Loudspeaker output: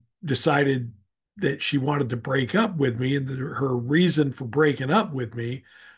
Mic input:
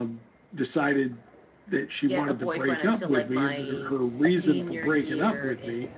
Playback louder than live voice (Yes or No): Yes